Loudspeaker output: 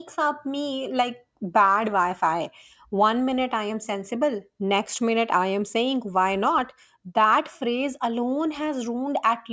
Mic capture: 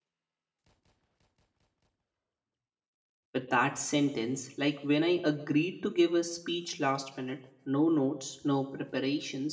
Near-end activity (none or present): present